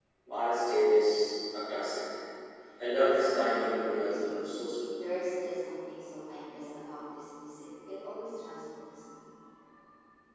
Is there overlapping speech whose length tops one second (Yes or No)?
Yes